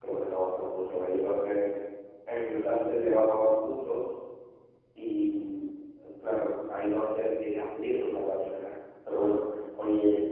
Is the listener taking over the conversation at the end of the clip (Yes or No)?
No